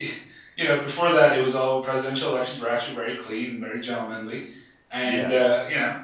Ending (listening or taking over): listening